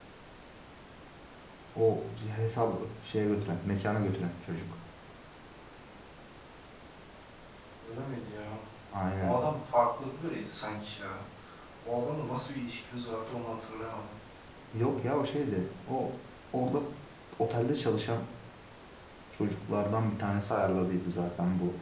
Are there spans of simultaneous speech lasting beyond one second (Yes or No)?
No